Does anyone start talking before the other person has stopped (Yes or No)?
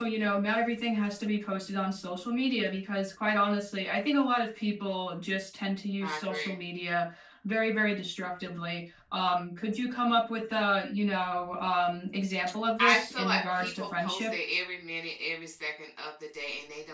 Yes